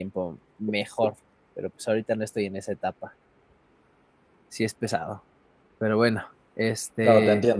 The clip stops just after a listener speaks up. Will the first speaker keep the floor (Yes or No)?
No